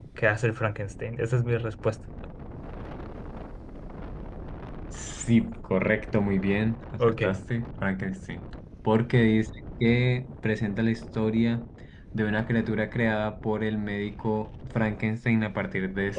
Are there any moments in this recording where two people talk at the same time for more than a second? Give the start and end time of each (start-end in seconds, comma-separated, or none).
none